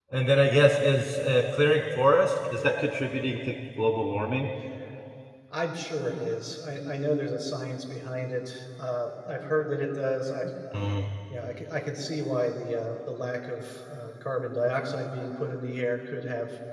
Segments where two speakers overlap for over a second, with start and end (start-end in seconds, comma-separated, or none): none